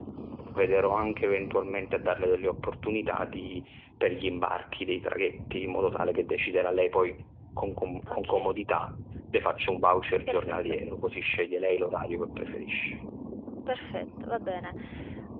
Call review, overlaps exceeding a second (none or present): none